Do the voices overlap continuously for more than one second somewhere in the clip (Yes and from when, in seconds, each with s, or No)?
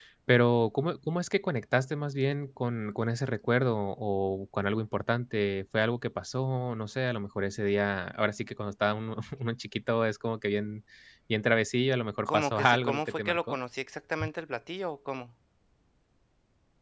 Yes, from 12.2 s